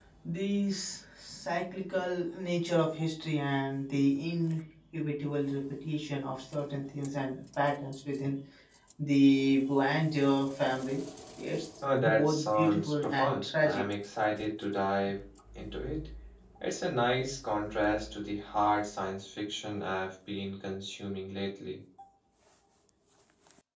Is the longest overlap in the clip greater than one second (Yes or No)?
Yes